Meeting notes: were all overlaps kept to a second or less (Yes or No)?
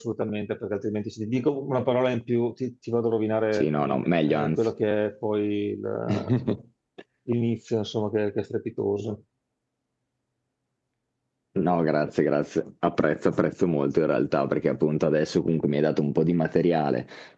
Yes